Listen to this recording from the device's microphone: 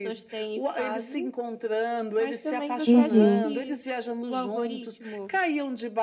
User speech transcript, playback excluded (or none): Uhum.